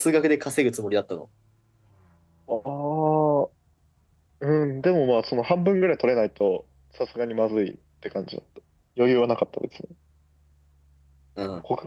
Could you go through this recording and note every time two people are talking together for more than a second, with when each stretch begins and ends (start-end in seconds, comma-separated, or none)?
none